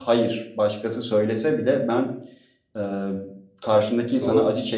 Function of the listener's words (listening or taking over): listening